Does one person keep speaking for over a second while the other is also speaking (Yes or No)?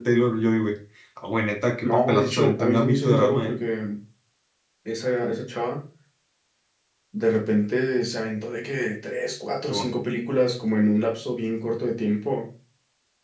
Yes